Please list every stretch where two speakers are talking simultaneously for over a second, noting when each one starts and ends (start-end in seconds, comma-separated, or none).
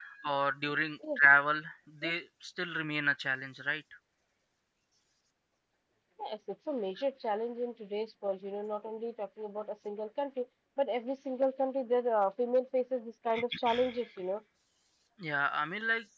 none